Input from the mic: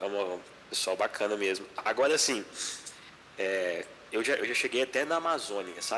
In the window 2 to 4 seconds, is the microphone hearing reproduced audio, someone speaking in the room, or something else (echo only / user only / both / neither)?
echo only